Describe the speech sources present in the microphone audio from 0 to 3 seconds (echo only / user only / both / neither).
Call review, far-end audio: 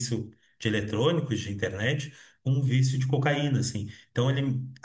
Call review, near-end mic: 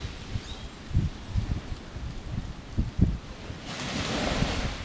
neither